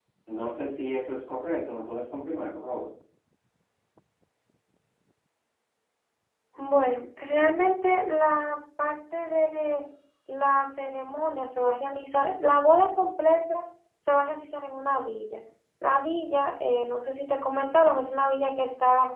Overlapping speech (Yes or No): No